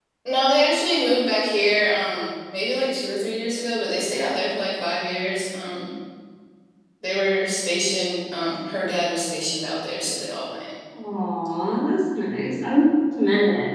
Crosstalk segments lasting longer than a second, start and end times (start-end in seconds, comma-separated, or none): none